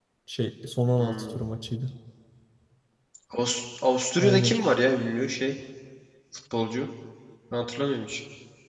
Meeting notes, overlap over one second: none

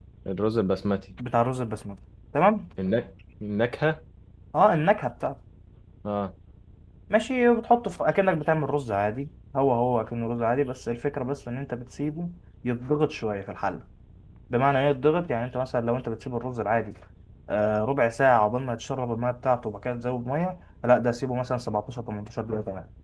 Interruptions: none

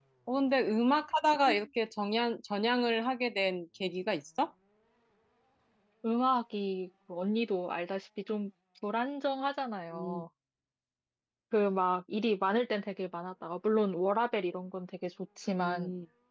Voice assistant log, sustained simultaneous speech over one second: none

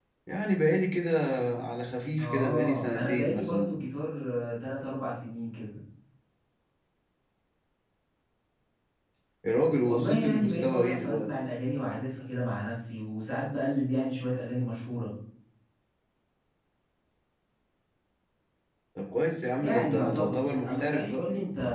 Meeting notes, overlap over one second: present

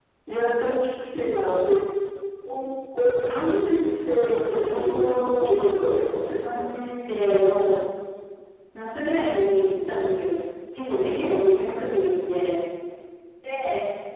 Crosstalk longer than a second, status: present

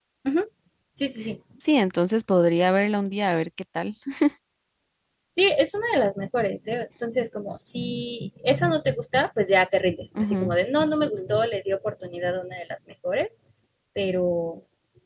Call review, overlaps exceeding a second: none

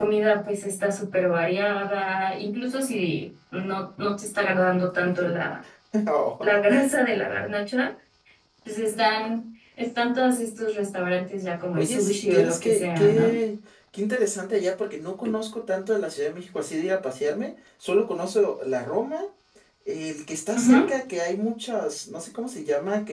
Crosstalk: present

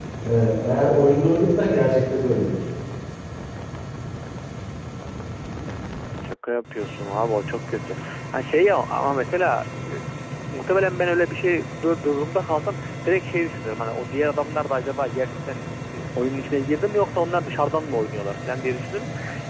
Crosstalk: none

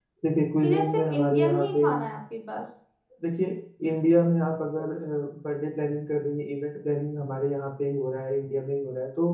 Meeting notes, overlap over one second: present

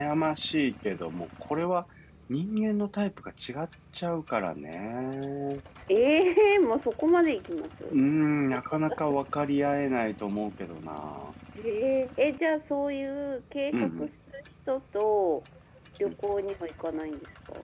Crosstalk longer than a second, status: none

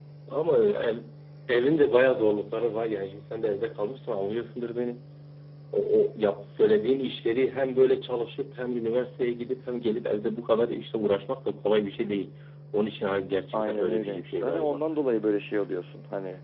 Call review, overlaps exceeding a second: present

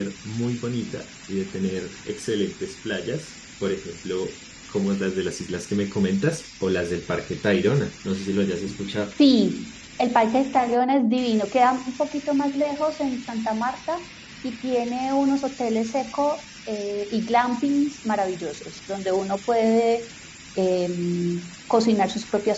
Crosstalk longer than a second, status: none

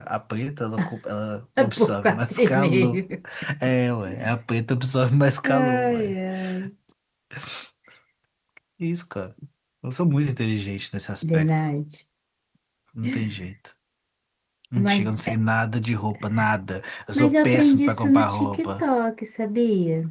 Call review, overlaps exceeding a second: present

